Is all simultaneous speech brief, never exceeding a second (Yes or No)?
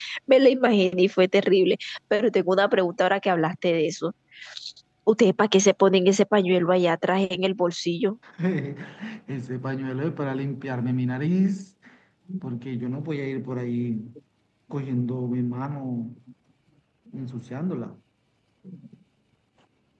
Yes